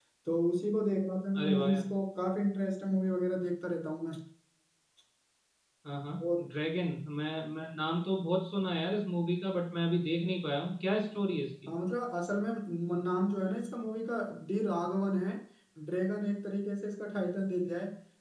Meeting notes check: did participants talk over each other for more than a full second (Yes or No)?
No